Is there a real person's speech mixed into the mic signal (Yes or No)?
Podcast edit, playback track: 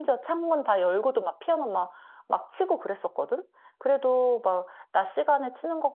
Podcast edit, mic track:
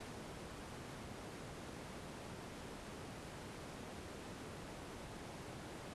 No